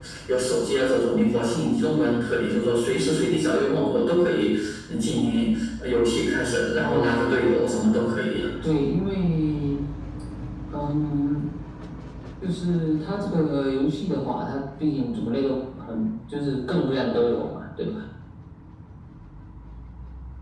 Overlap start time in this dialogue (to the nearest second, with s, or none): 7 s